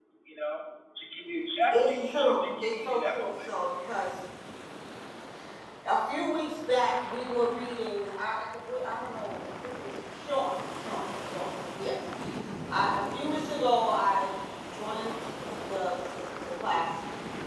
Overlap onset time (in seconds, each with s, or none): 1.7 s